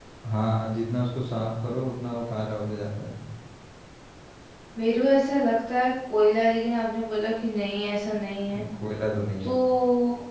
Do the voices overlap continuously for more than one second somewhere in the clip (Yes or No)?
No